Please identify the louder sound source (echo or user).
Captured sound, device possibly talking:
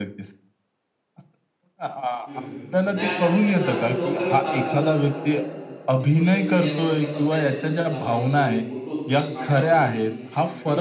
echo